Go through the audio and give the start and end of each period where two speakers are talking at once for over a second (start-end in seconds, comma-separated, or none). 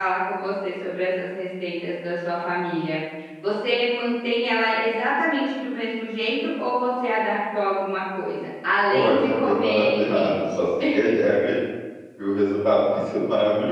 8.9-10.4